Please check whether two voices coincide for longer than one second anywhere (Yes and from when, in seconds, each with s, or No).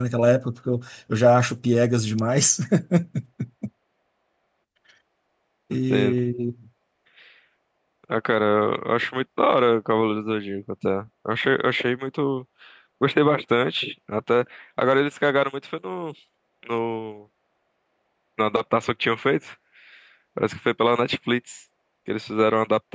No